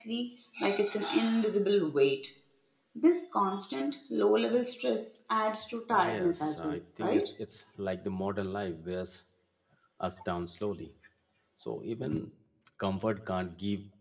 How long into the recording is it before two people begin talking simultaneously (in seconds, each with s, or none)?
5.9 s